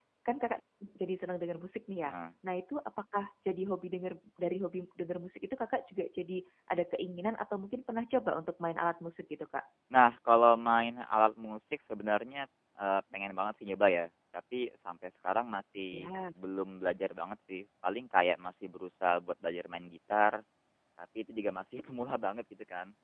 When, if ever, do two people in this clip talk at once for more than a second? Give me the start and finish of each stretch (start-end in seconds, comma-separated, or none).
none